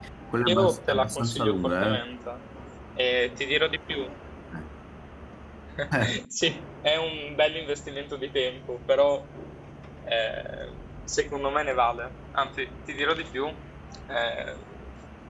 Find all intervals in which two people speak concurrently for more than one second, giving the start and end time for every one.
0.5-2.0

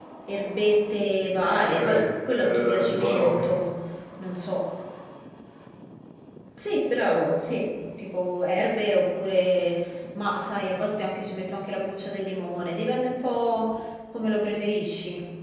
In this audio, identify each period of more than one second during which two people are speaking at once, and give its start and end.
1.8-3.5

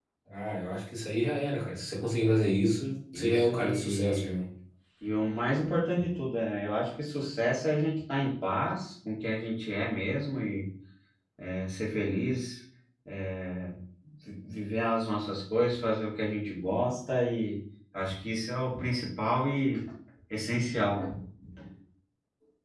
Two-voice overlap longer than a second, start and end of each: 3.1-4.4

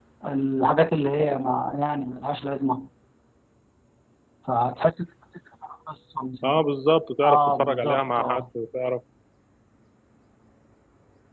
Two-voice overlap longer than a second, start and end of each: 7.2-8.4

